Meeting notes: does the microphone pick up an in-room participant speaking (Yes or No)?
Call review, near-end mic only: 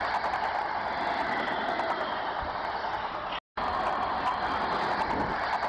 No